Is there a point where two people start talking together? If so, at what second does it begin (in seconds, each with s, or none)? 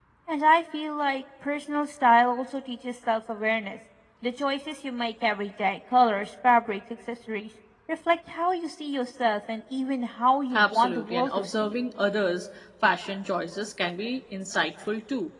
10.5 s